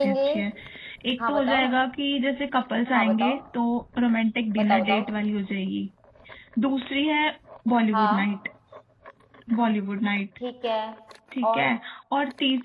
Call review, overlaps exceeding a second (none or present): none